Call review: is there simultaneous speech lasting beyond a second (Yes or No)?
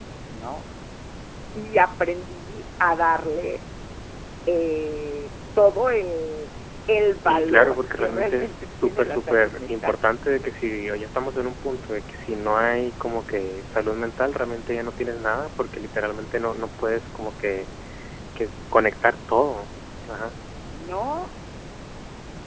Yes